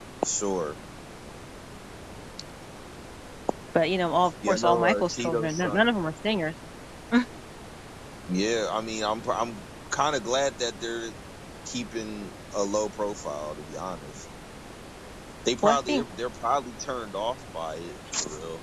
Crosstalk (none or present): present